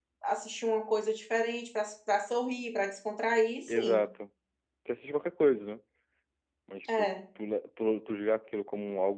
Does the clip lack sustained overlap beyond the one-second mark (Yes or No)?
Yes